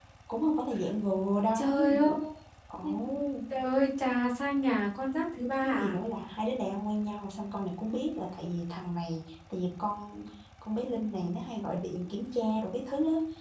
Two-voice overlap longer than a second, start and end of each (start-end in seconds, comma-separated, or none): none